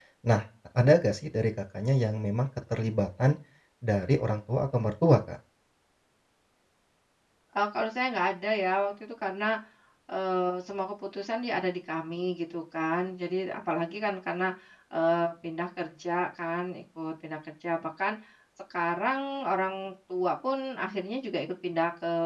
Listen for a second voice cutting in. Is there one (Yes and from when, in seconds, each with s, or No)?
No